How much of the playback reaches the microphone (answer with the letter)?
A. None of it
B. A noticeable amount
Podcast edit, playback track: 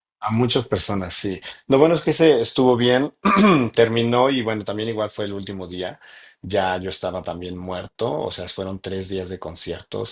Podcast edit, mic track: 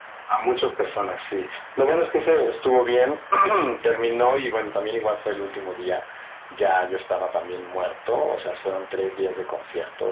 B